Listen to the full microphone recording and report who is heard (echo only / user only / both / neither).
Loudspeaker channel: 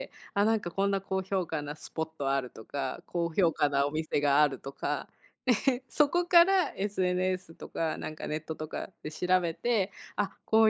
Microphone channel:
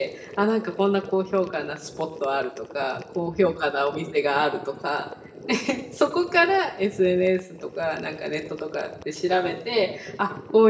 echo only